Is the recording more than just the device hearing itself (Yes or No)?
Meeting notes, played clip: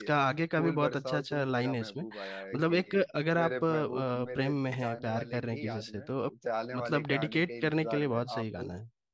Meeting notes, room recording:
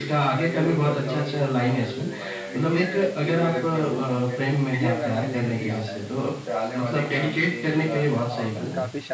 Yes